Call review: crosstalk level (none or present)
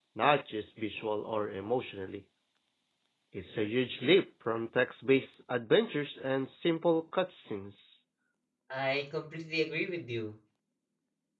none